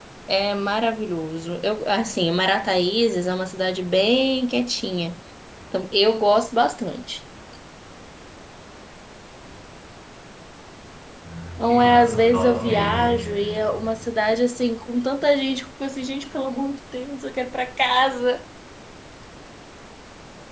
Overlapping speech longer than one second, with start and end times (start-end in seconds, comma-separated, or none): 11.7-13.0